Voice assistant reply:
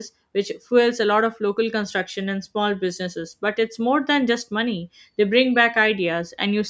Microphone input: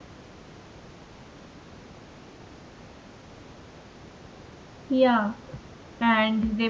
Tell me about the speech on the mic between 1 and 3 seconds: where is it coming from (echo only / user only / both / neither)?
neither